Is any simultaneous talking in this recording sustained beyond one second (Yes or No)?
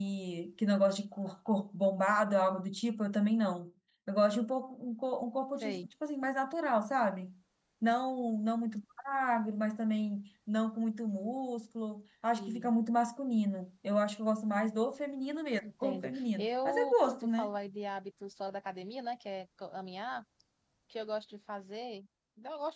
Yes